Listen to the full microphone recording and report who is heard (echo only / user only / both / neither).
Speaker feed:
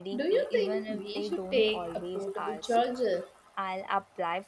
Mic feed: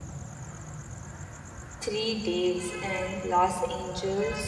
user only